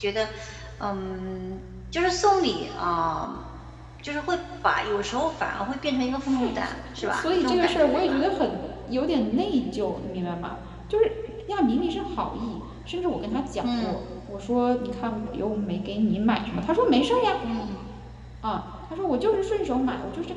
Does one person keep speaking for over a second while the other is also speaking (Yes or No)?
Yes